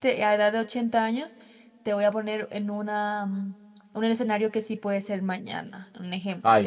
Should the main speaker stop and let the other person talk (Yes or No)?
Yes